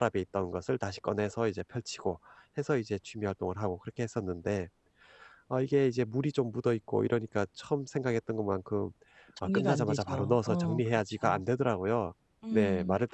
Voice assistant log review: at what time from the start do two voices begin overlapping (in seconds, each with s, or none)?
9.4 s